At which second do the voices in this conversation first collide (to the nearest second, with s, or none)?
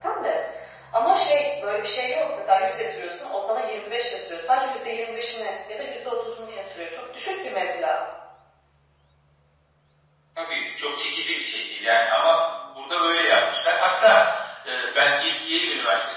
none